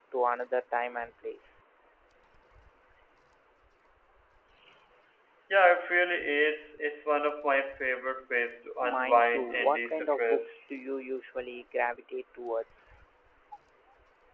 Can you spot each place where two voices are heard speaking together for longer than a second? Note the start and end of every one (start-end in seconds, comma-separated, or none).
8.8-10.6